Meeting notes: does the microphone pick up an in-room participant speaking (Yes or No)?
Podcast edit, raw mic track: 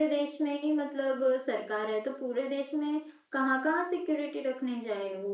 No